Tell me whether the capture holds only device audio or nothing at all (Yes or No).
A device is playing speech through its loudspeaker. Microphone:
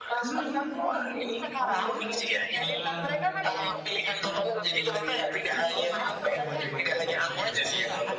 No